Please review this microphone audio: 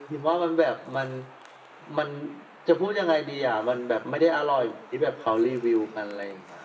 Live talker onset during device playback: none

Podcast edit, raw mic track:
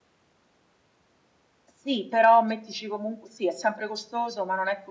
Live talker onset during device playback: 2 s

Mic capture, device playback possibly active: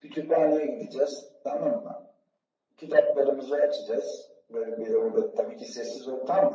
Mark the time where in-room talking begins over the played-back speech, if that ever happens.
none

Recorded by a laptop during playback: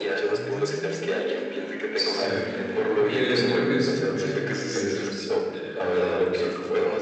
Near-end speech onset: 2 s

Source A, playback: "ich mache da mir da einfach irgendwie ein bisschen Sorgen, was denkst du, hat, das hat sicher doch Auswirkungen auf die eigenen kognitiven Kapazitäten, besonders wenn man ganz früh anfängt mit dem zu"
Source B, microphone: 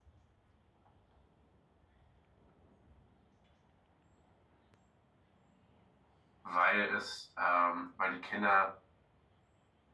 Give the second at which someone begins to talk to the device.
6 s

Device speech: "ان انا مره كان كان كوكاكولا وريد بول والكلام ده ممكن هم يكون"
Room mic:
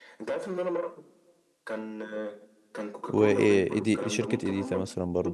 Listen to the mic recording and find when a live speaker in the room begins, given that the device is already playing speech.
3 s

